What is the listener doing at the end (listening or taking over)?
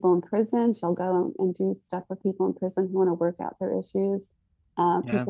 listening